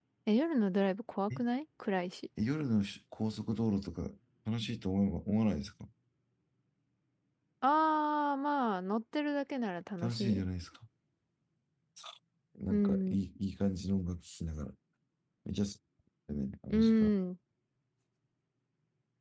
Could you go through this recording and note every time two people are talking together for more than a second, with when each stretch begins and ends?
none

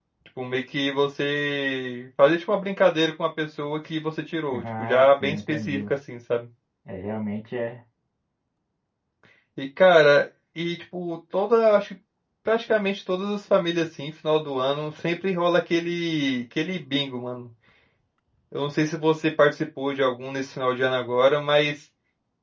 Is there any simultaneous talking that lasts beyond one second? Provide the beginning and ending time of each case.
4.5-5.8

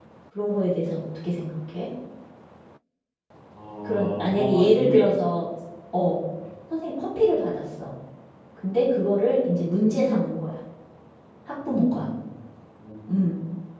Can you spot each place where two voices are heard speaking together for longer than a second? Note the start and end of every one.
3.8-5.1

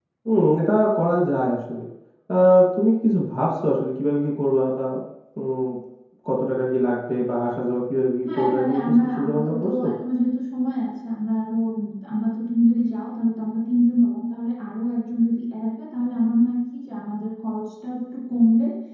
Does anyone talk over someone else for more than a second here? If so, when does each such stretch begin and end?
8.3-9.8

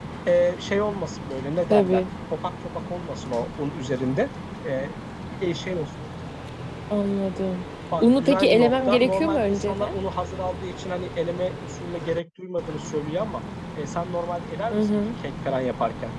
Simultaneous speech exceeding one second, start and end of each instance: 8.0-10.0

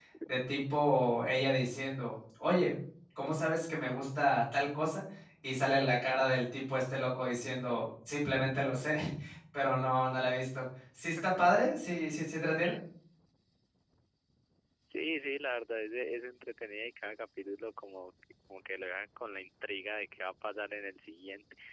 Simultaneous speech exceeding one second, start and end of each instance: none

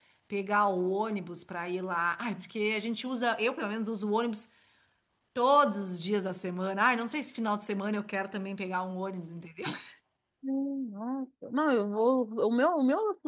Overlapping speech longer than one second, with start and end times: none

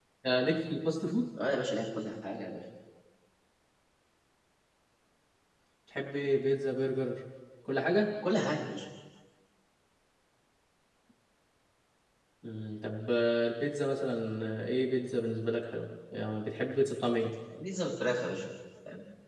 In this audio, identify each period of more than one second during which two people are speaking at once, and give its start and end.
none

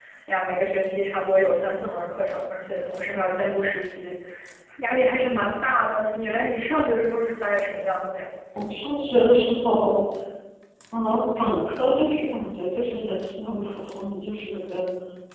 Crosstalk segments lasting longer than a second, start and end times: none

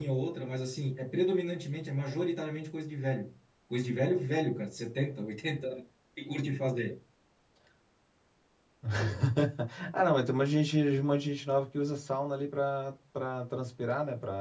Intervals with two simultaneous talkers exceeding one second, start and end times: none

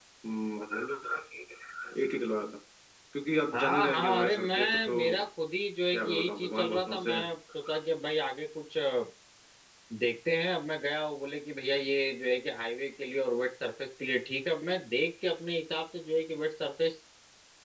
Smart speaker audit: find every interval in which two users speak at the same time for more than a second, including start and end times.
3.5-5.2, 5.9-7.3

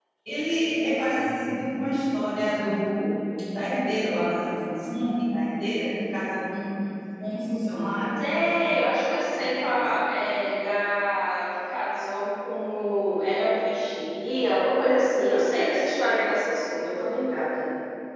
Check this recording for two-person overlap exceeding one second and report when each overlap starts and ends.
none

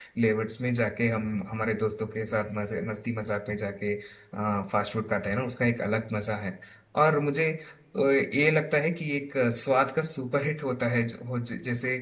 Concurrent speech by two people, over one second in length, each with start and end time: none

